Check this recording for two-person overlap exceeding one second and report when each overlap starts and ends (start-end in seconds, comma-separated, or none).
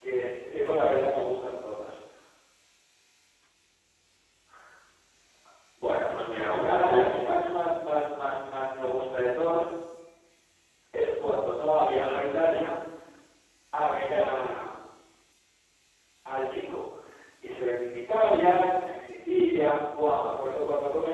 6.3-8.1